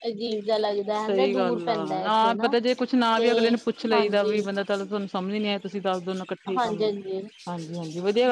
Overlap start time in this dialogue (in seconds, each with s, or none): 1.1 s